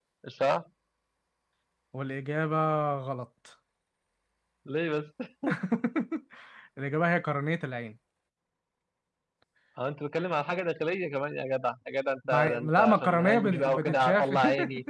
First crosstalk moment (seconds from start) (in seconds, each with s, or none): 12.2 s